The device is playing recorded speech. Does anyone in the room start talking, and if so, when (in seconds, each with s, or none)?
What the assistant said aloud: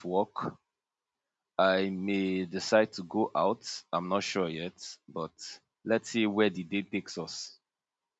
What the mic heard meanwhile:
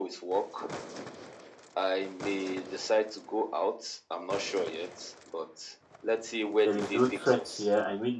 6.6 s